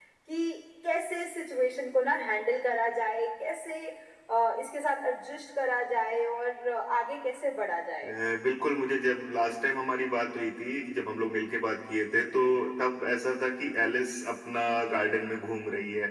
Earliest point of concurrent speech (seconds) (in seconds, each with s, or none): none